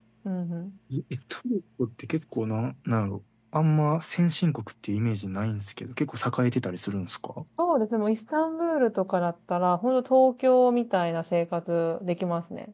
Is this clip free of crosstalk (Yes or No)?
Yes